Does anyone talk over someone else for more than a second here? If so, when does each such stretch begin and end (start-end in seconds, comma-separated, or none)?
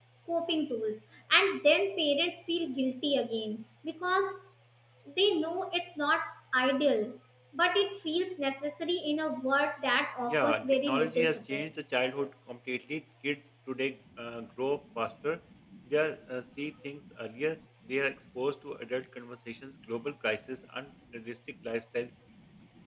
10.3-11.7